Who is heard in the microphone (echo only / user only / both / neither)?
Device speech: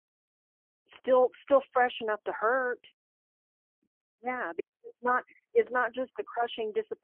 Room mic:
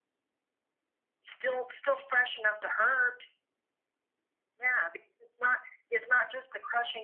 echo only